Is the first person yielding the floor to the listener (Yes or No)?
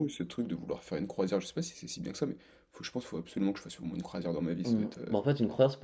Yes